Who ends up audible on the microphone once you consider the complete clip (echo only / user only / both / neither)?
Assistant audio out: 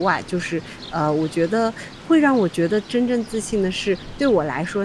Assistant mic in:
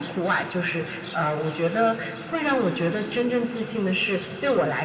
echo only